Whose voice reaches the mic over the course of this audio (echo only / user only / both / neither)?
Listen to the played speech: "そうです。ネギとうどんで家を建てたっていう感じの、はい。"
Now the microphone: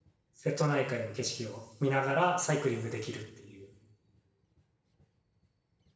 user only